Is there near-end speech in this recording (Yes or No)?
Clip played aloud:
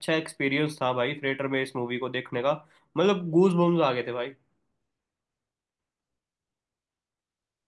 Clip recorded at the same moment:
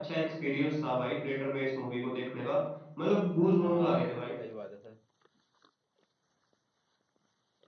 Yes